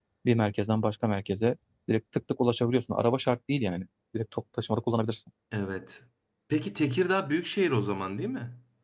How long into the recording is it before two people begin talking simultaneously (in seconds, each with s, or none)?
none